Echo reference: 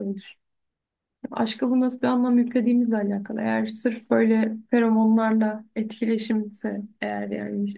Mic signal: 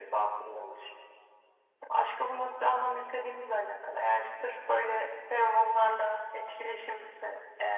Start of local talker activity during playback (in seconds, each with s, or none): none